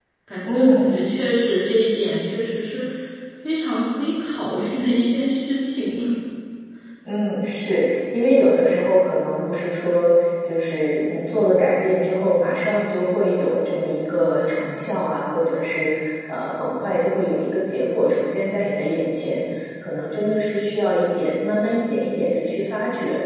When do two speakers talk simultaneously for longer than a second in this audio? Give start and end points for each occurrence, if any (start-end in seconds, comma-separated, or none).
none